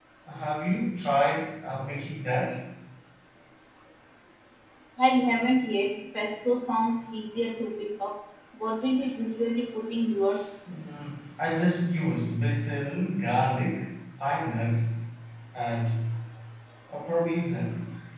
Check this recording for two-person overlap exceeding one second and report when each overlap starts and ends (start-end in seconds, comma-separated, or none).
none